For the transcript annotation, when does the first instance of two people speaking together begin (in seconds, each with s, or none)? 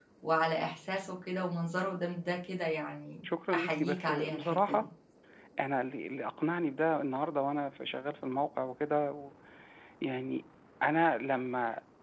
3.2 s